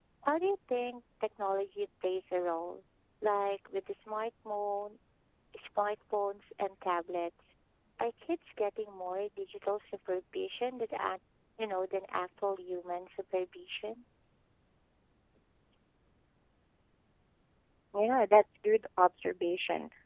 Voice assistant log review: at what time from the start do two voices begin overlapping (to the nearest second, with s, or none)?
none